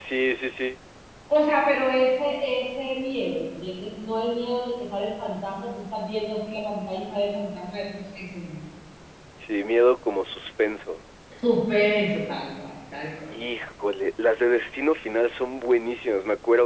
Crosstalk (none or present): none